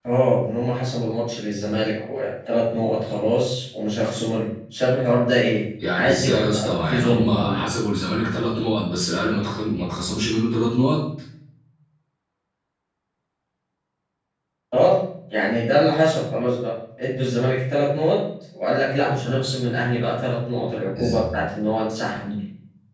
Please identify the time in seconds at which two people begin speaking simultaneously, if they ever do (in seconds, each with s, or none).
5.9 s